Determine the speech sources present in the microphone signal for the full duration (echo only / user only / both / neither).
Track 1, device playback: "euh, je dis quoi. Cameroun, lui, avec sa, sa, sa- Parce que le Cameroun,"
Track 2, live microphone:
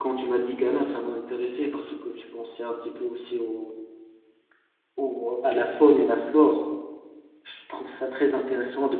user only